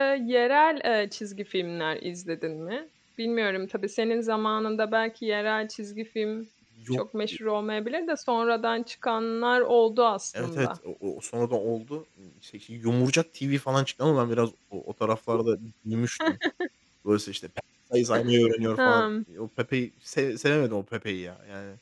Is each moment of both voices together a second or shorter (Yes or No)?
Yes